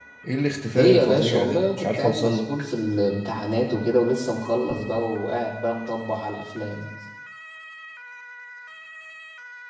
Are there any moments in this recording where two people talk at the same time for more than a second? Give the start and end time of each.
0.8-2.5

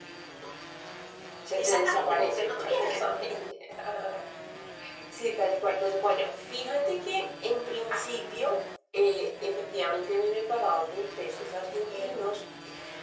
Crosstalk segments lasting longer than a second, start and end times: 1.6-3.0

